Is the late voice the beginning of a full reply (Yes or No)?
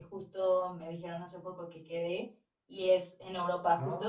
No